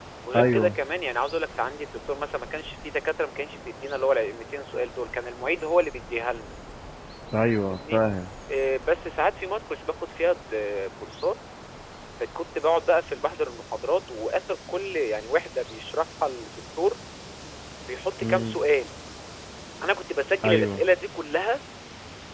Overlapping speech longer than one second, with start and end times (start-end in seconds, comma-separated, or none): none